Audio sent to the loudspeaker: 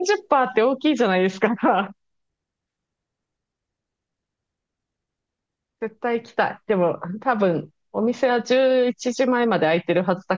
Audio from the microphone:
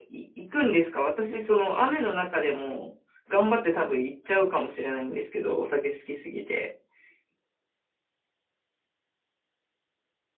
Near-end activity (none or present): present